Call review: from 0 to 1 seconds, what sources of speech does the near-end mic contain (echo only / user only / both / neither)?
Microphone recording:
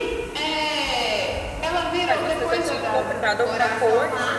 echo only